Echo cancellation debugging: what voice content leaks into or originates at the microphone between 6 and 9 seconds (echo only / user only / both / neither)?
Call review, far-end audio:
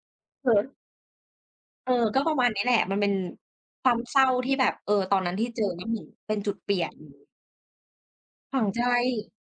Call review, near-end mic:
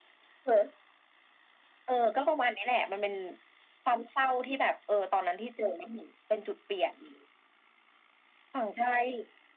echo only